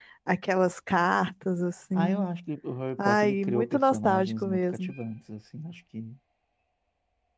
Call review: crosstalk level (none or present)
present